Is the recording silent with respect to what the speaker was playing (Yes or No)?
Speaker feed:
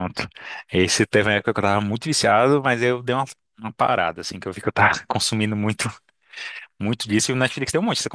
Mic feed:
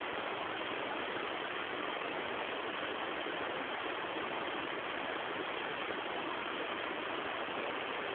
Yes